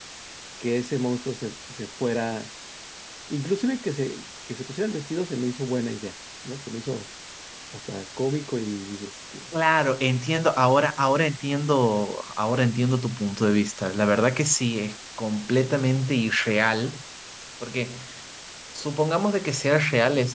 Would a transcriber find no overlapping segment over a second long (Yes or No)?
Yes